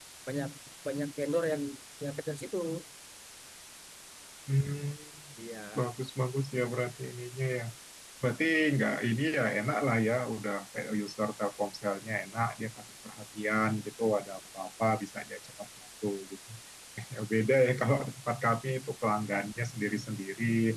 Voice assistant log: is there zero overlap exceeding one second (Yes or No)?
Yes